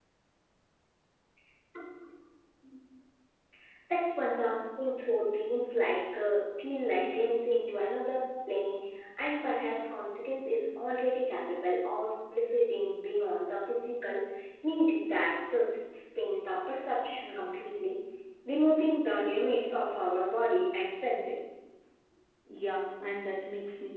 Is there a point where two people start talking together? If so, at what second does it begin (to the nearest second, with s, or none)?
none